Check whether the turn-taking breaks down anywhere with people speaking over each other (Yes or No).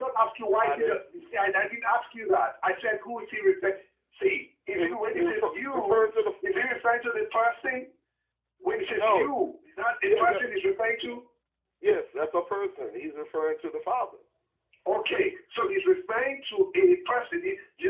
Yes